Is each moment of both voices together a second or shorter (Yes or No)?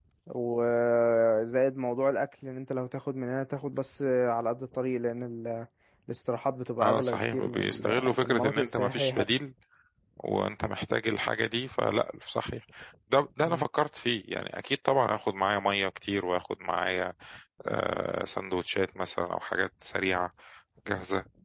No